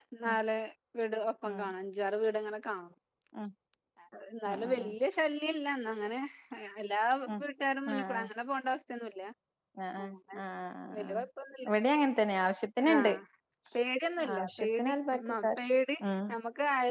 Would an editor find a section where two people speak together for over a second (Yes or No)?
Yes